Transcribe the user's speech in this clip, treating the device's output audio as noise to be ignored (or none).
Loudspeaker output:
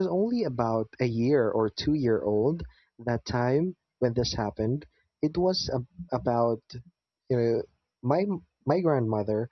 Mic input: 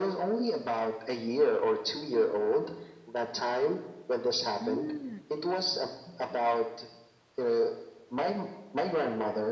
Mm, I see.